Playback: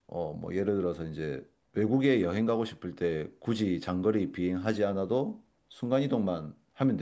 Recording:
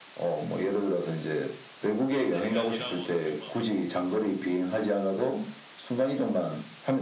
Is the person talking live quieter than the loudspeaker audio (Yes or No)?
Yes